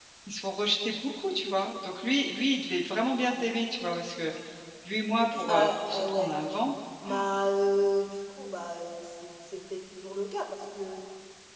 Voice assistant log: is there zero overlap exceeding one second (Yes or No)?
No